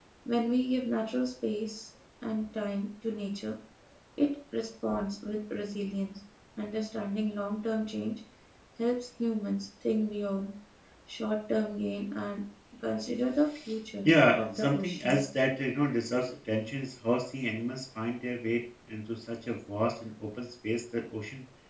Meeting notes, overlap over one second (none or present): present